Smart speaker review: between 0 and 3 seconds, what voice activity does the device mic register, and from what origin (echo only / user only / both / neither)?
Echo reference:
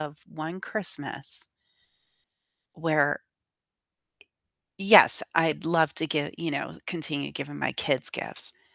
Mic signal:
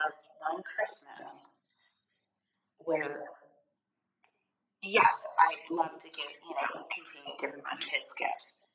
echo only